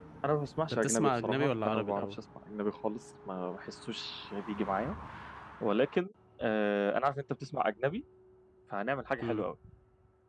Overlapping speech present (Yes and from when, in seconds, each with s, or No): Yes, from 0.7 s